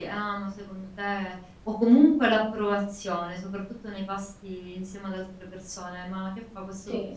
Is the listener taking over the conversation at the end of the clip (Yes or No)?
No